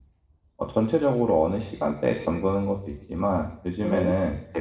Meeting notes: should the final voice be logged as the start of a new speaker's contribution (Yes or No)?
No